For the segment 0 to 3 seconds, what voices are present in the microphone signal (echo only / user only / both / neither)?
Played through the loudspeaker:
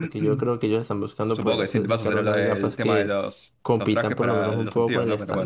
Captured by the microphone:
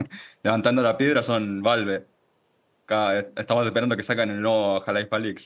user only